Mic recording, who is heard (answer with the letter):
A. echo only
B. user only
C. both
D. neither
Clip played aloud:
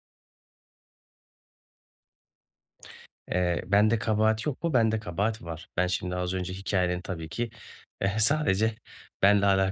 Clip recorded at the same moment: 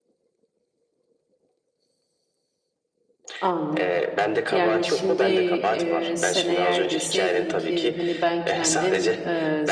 C